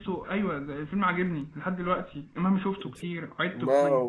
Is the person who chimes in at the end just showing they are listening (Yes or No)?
No